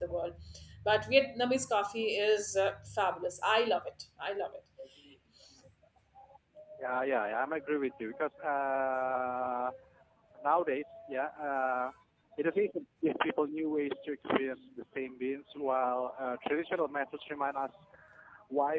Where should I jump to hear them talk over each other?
none

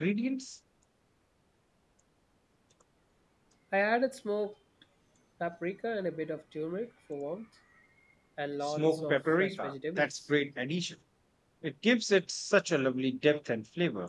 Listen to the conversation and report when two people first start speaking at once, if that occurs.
8.6 s

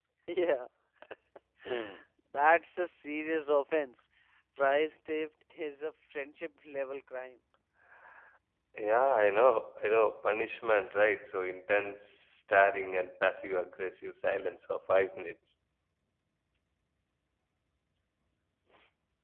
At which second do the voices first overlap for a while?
none

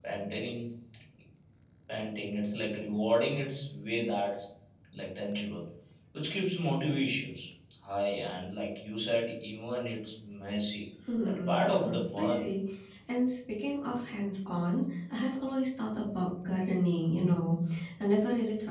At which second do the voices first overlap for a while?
11.1 s

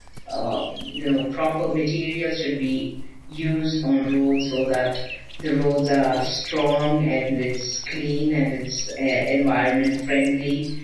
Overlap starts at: none

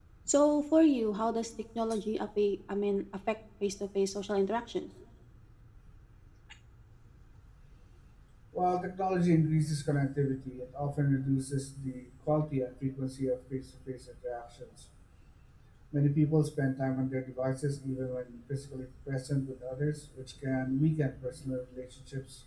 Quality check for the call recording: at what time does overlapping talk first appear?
none

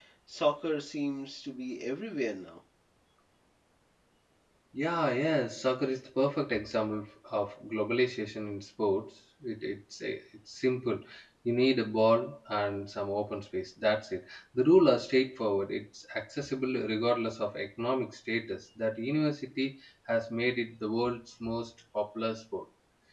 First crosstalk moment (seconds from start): none

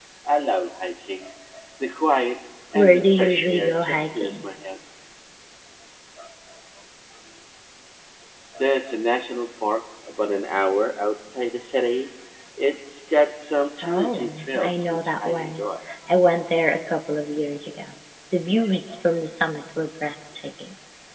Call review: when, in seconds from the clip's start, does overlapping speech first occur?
2.7 s

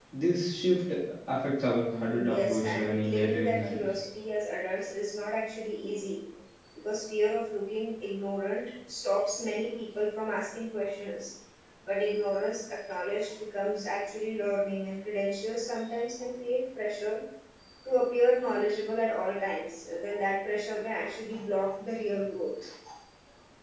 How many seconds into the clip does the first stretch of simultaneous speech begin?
1.9 s

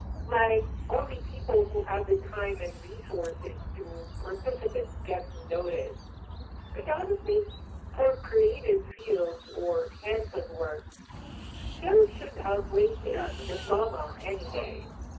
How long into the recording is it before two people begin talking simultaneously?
13.1 s

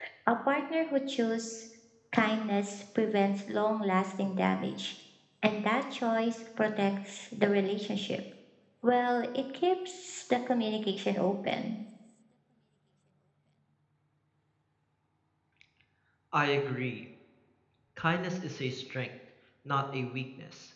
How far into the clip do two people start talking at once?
none

